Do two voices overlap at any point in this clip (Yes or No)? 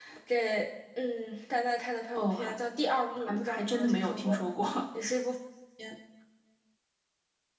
Yes